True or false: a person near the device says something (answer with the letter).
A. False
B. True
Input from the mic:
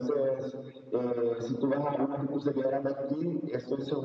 A